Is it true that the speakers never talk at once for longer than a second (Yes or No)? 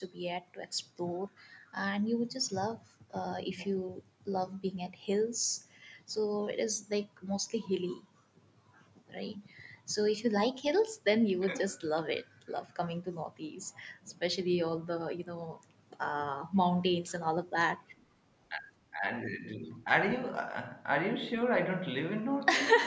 Yes